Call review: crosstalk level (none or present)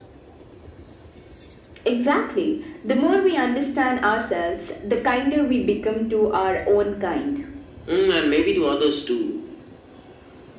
none